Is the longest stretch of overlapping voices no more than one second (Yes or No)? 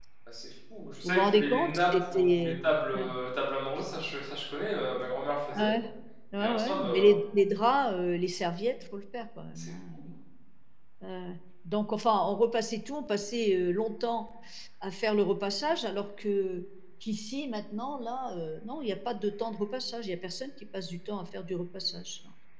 No